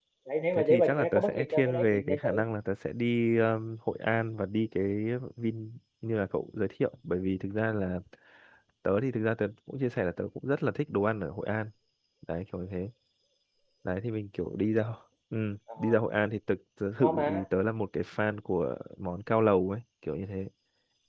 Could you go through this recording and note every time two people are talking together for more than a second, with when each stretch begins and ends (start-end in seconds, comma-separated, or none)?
0.5-2.4